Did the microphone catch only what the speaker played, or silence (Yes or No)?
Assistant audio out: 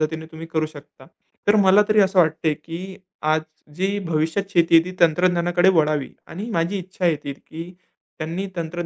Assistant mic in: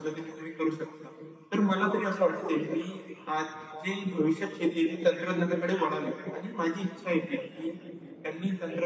Yes